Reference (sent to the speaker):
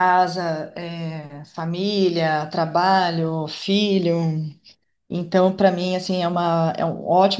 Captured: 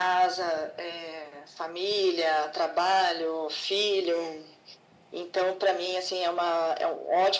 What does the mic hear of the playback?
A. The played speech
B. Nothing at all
A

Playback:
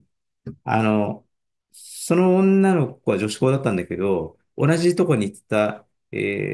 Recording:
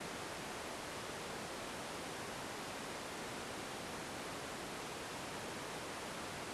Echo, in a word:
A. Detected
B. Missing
B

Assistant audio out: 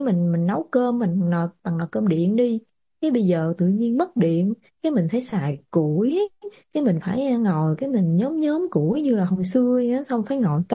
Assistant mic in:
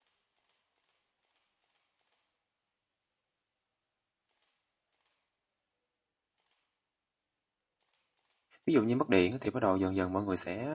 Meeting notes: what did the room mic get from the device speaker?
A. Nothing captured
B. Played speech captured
A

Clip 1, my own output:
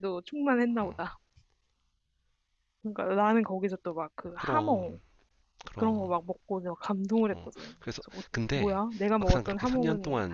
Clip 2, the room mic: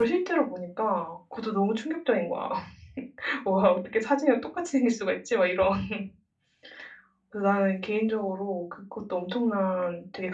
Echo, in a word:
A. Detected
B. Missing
B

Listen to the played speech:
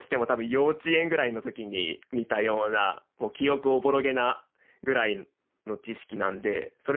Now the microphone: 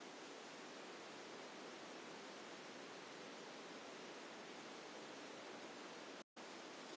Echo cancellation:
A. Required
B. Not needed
B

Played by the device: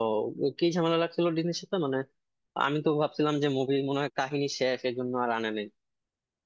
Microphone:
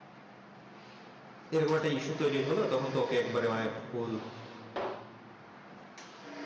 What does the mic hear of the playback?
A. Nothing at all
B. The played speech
A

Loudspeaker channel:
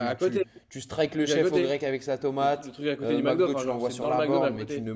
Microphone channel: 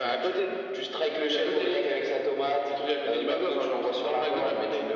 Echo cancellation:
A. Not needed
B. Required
B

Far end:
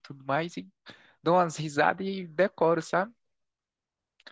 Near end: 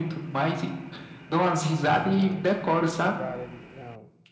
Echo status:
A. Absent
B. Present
B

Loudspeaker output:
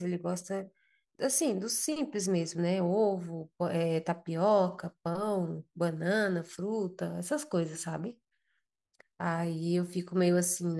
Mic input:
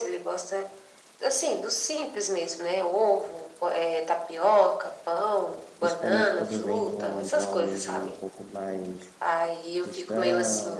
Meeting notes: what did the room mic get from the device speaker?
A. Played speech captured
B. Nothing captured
A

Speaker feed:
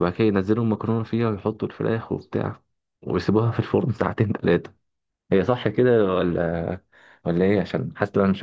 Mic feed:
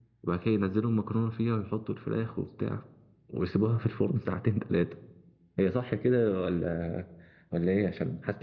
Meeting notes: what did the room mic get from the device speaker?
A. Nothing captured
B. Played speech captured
B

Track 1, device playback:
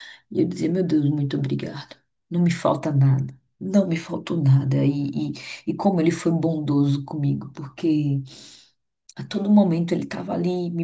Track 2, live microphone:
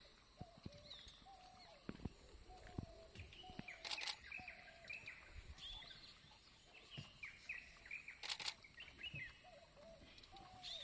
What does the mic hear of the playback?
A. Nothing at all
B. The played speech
A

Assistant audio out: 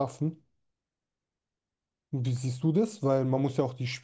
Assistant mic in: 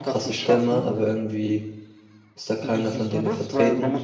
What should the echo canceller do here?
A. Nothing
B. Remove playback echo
B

